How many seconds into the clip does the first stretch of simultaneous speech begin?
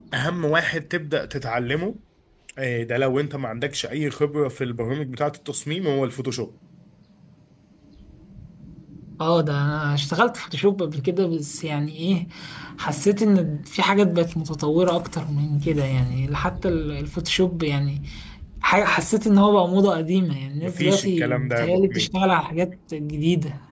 20.6 s

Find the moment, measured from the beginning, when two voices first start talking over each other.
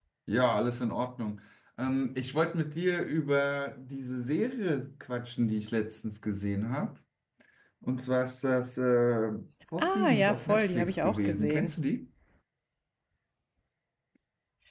9.8 s

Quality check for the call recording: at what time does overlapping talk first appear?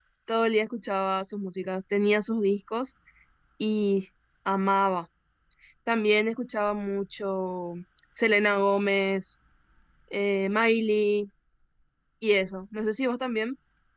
none

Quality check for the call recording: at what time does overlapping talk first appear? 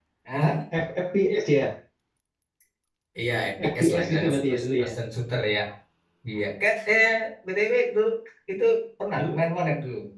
3.7 s

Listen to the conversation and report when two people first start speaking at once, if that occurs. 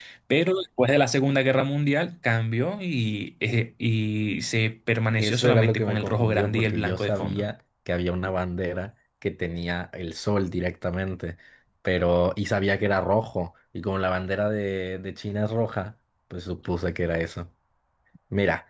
5.2 s

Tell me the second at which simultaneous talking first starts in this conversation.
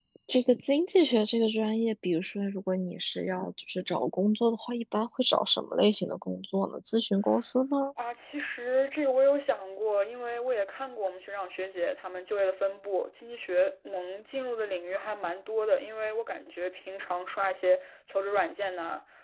none

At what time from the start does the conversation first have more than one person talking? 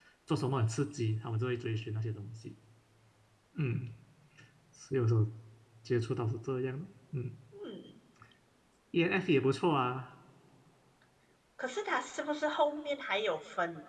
none

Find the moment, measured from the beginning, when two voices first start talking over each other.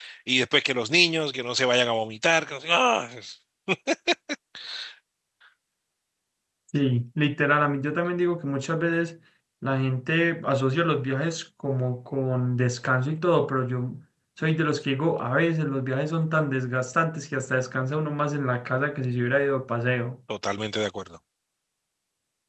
none

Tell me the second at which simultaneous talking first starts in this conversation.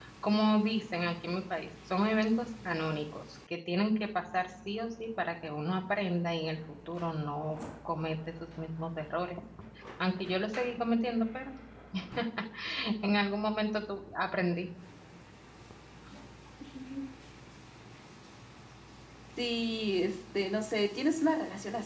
none

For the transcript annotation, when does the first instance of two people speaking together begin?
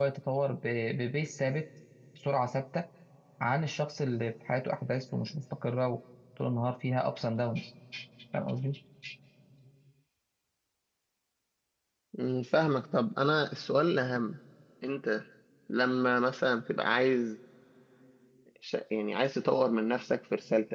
none

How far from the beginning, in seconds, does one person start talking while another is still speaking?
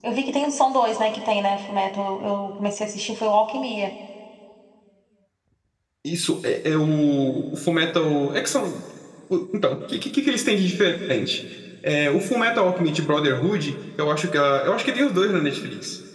none

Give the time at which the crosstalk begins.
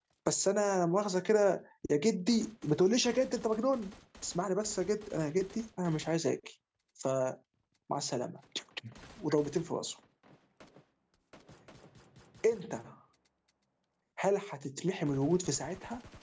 none

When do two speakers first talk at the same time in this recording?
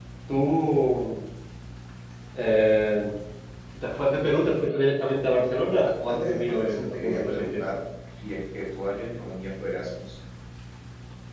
6.1 s

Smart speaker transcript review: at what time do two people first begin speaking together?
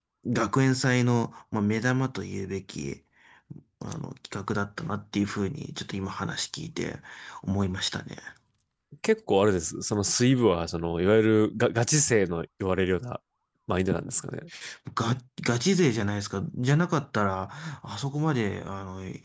none

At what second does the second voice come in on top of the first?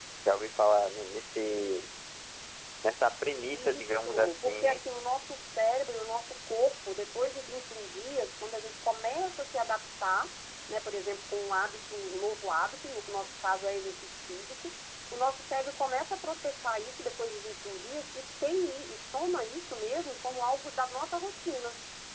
3.3 s

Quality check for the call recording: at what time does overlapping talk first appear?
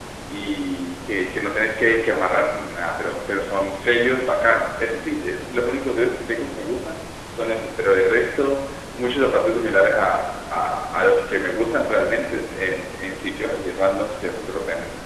none

